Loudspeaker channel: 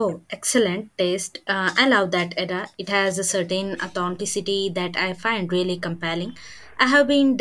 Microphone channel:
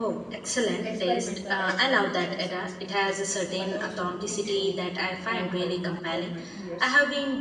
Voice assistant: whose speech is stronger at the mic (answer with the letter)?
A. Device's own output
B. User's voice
A